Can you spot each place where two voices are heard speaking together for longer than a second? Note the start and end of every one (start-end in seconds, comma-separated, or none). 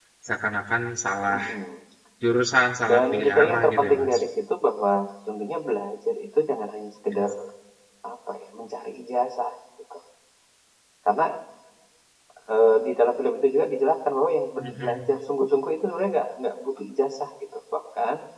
2.9-4.2